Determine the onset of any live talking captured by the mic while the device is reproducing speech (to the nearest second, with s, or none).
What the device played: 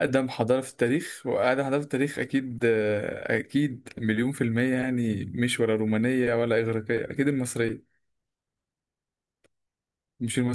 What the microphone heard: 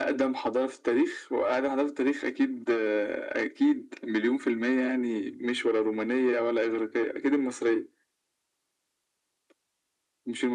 none